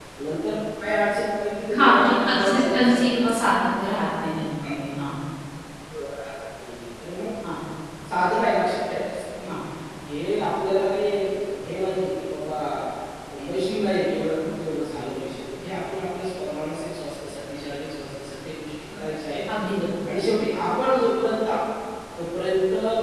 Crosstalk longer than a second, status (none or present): present